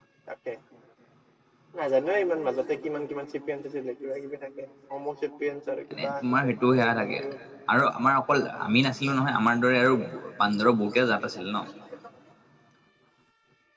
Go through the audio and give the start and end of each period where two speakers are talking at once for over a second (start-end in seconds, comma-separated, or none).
5.9-7.2